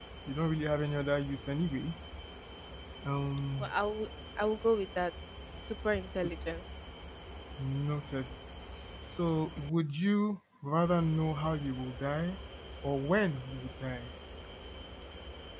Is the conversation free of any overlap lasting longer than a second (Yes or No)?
Yes